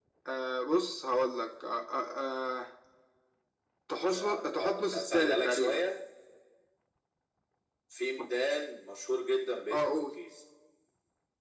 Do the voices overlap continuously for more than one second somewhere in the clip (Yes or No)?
Yes